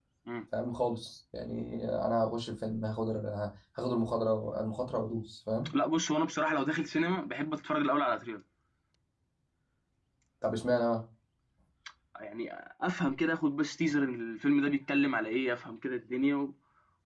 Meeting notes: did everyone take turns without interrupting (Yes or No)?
Yes